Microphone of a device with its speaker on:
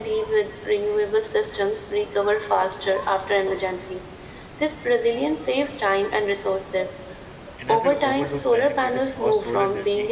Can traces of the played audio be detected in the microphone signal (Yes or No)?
Yes